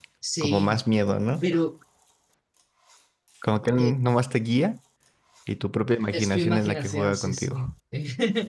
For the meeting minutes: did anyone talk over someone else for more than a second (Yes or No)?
Yes